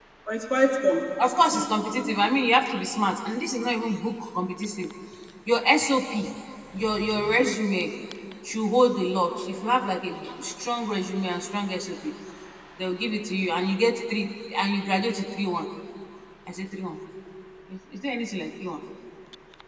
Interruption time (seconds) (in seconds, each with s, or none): 1.2 s